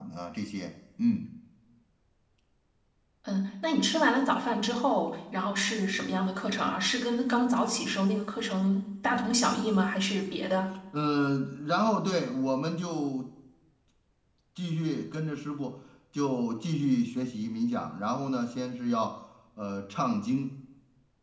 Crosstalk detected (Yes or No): No